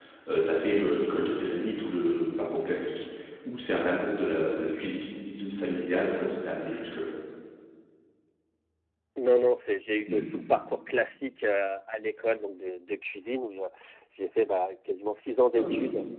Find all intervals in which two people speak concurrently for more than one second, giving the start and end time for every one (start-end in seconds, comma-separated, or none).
none